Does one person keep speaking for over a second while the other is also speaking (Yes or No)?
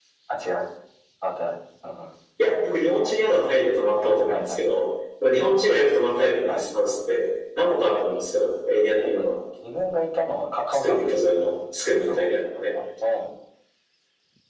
No